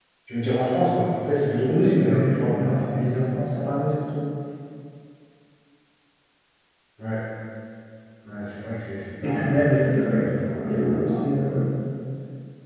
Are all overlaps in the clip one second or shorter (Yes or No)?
No